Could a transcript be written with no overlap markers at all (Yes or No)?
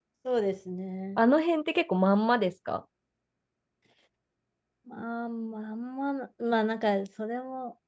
Yes